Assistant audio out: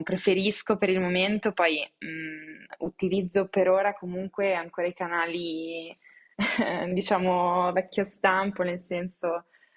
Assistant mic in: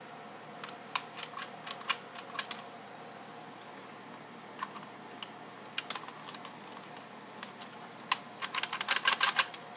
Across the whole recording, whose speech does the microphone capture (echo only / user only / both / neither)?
neither